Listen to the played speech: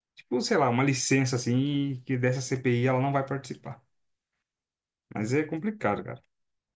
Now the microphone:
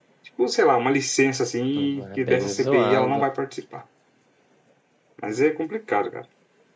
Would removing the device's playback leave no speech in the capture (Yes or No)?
No